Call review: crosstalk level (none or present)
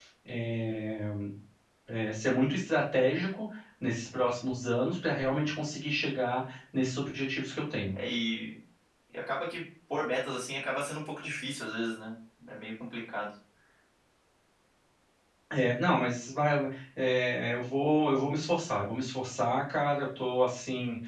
none